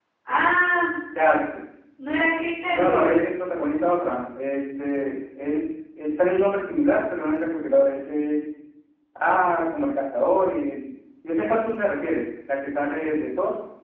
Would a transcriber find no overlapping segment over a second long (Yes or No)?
Yes